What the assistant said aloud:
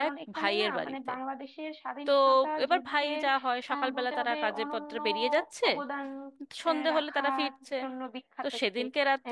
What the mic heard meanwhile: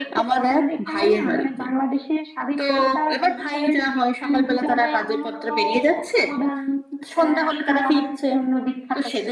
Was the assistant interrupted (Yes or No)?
No